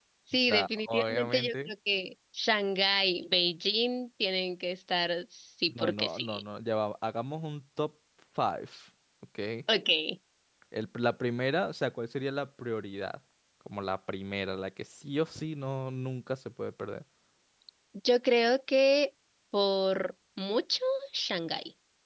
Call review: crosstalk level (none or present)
present